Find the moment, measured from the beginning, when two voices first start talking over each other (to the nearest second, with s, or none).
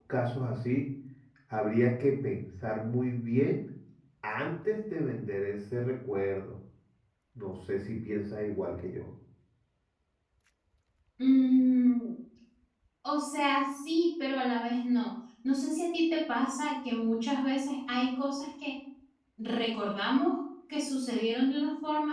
none